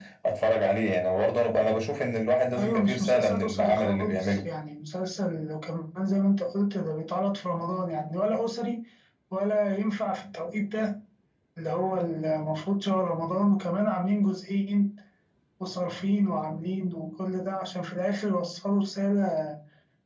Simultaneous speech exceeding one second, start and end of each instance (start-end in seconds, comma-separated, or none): 2.6-4.4